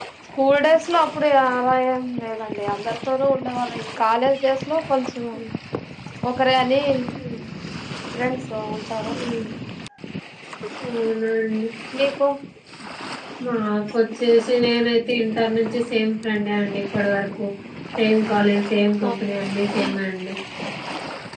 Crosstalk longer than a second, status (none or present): none